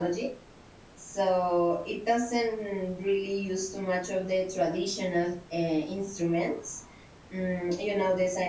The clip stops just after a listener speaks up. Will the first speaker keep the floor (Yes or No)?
Yes